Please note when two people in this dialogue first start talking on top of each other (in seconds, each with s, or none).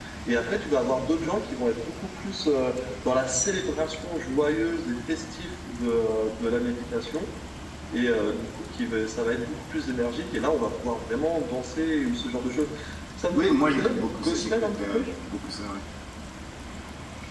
13.3 s